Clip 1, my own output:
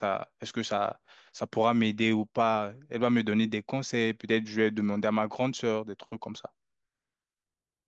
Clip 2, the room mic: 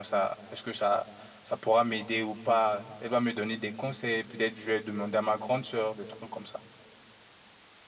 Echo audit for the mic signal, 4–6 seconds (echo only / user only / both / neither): echo only